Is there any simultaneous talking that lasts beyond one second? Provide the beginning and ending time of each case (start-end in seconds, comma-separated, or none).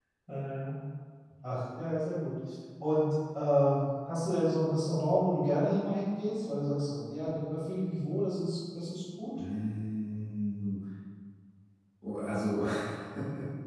none